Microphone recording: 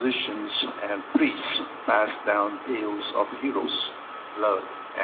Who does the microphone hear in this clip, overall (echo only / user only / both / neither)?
echo only